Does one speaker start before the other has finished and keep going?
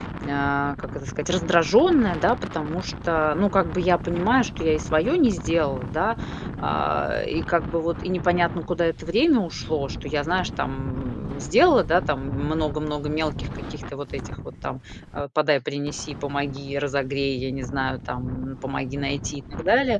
No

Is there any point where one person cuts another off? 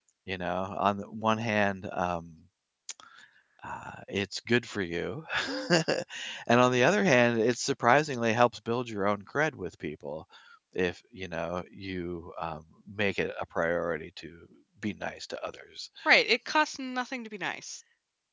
No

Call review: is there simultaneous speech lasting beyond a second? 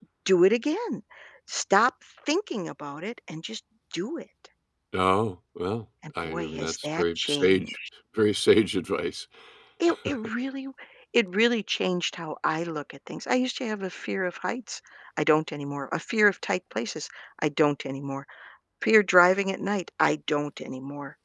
Yes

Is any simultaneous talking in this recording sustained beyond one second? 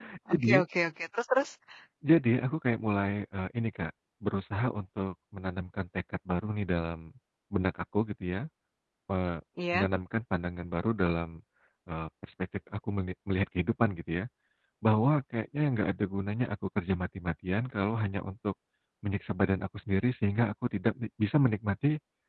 No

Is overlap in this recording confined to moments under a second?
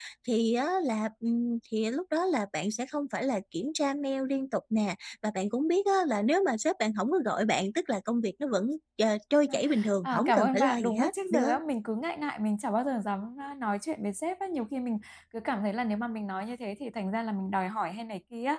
No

